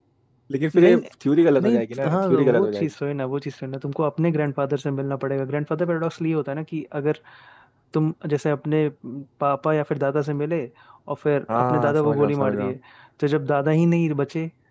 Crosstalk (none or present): present